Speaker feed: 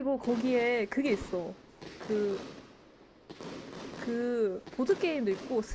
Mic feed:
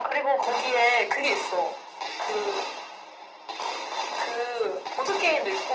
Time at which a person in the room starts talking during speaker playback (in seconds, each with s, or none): none